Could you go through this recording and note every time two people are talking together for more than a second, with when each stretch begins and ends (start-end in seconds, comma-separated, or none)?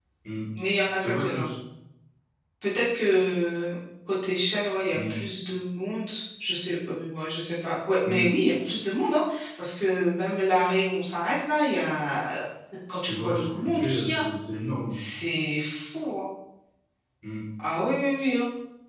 13.0-14.2